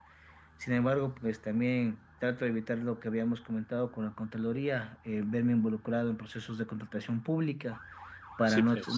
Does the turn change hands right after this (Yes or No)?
No